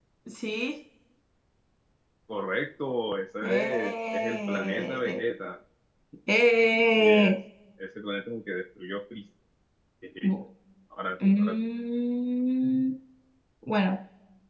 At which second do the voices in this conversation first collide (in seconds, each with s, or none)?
3.4 s